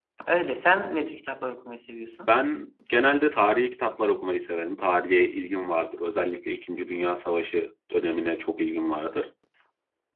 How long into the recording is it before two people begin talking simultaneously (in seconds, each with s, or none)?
none